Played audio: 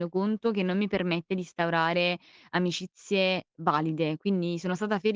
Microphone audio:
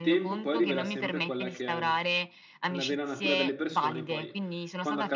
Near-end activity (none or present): present